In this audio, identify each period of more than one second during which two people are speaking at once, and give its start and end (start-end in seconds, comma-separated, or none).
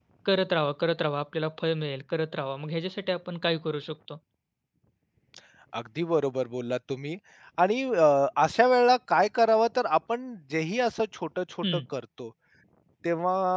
none